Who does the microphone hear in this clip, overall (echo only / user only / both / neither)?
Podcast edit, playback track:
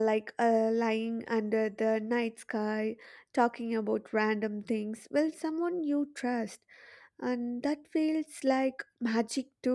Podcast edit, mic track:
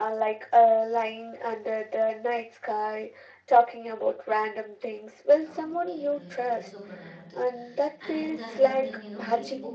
both